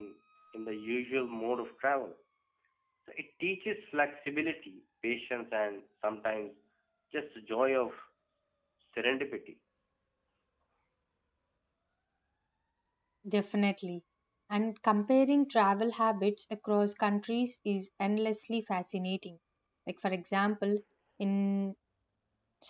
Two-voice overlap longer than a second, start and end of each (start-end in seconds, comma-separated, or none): none